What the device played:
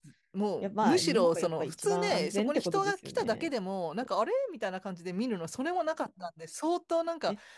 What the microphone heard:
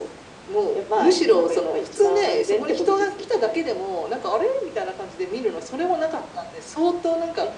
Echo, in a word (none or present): present